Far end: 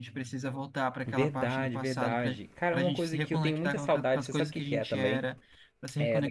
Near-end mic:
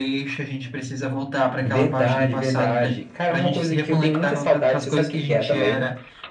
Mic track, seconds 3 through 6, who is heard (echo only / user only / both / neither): echo only